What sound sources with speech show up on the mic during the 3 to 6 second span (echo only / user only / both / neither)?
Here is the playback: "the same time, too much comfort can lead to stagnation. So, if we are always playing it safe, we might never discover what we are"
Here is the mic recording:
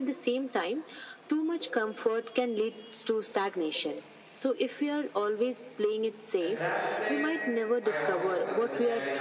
echo only